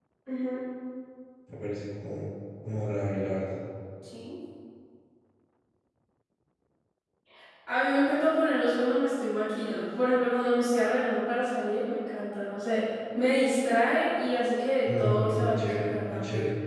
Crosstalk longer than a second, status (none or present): present